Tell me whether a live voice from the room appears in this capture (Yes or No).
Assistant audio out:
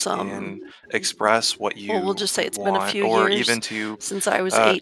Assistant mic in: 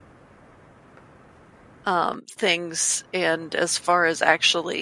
Yes